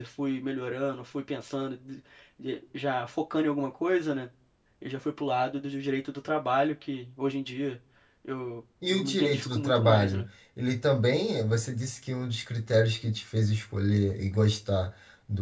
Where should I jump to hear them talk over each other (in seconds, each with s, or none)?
8.9 s